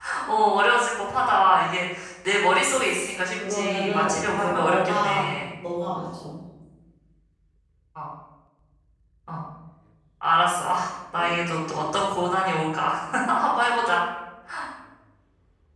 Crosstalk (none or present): present